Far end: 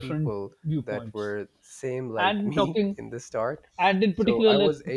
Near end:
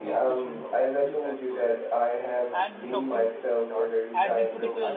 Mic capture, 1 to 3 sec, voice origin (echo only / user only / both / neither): both